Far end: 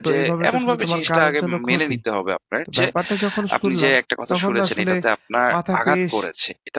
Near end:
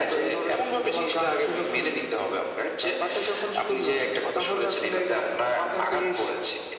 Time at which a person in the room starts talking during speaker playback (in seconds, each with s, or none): none